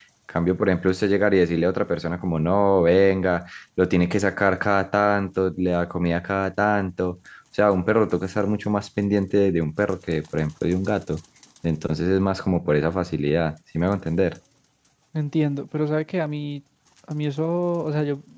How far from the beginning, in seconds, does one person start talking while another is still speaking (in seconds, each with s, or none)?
none